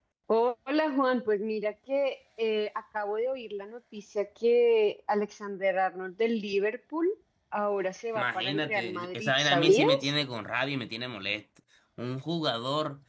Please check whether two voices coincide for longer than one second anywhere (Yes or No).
Yes